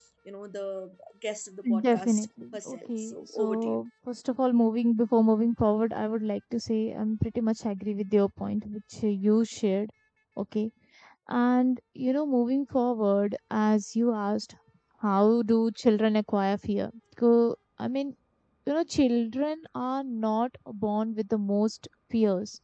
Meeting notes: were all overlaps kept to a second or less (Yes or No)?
No